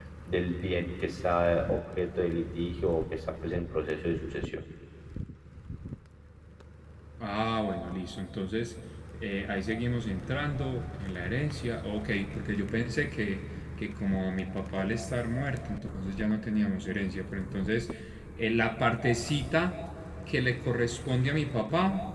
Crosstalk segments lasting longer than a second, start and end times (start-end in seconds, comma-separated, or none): none